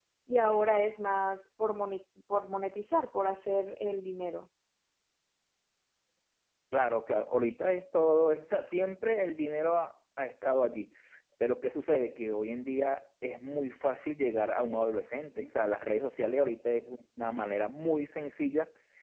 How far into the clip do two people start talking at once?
none

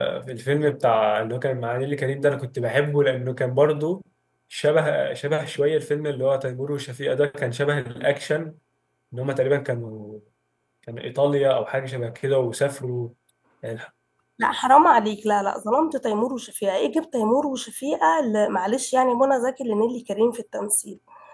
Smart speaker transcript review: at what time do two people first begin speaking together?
none

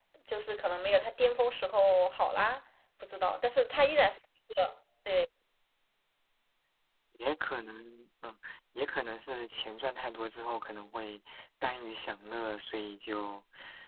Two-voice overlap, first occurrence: none

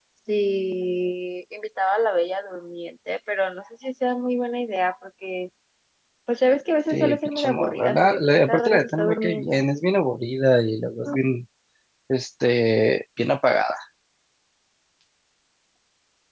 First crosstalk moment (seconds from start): 7 s

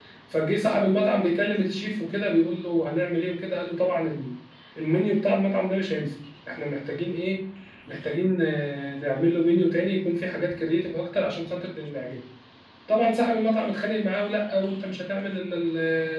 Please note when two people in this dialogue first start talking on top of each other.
none

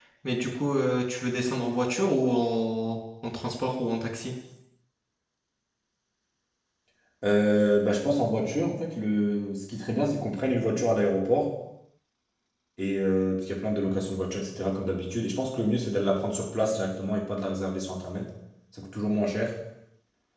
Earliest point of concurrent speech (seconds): none

